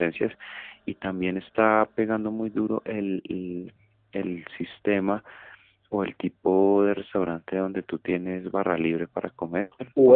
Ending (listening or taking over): taking over